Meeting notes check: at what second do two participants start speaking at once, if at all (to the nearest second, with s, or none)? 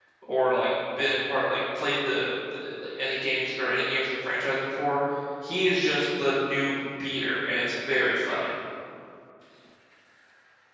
none